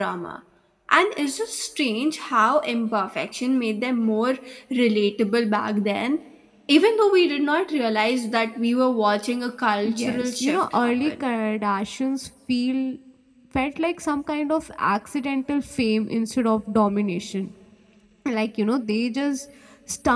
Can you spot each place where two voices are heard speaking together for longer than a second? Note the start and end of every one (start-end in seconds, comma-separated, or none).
9.8-11.2